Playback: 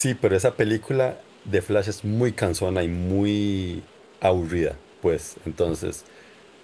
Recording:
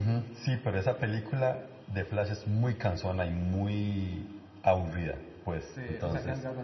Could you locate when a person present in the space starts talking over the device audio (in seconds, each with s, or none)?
5.7 s